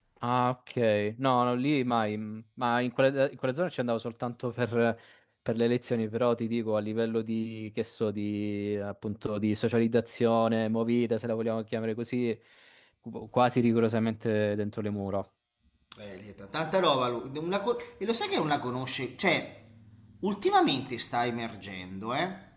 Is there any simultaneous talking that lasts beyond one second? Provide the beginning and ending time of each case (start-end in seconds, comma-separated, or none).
none